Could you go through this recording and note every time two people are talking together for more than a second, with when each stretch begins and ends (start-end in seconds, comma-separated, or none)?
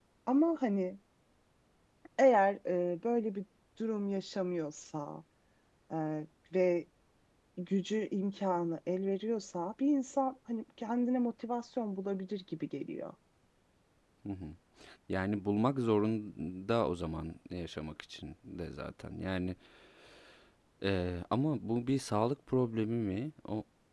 none